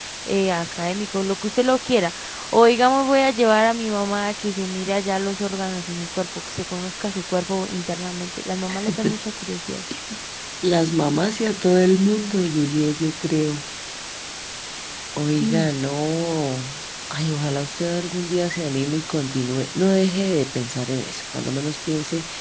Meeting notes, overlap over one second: none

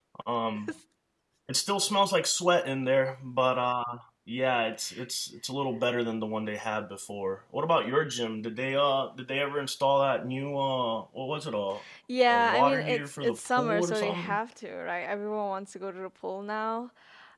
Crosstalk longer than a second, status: present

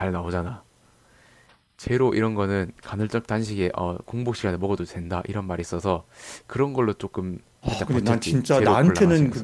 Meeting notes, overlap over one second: present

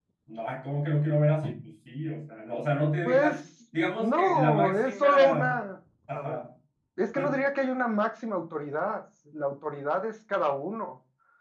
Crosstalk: present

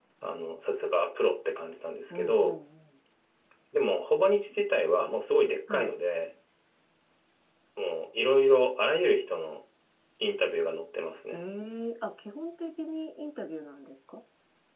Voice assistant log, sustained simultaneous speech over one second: none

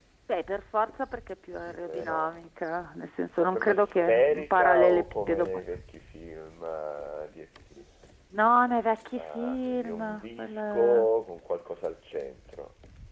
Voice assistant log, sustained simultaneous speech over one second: present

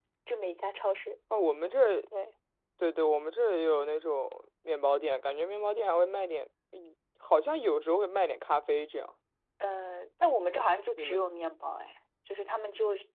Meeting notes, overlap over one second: none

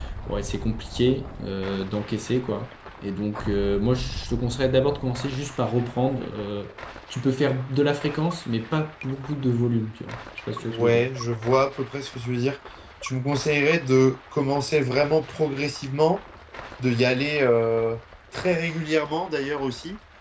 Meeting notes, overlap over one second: none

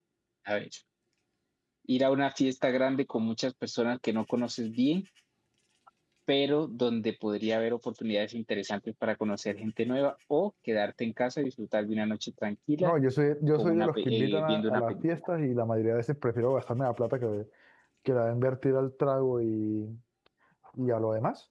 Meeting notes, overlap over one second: present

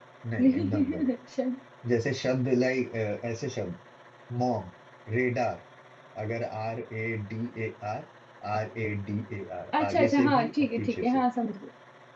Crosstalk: present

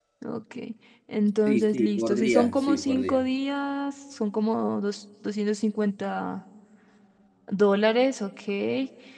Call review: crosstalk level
present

